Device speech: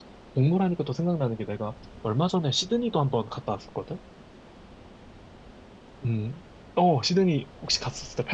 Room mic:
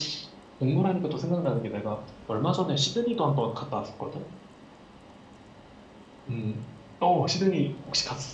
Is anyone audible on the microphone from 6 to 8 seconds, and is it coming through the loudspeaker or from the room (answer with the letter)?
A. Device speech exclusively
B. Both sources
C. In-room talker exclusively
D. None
A